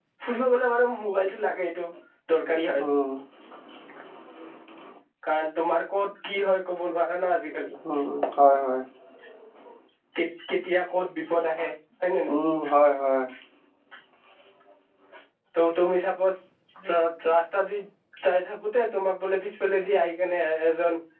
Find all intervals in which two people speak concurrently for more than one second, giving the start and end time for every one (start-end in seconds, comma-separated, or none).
none